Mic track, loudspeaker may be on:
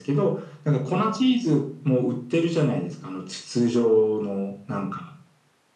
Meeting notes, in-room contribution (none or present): none